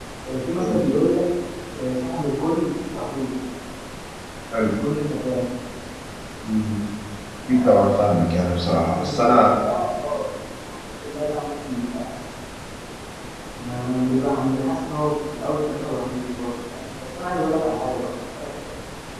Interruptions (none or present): present